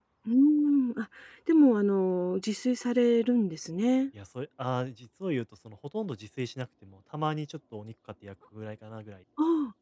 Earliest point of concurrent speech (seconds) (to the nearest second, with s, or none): none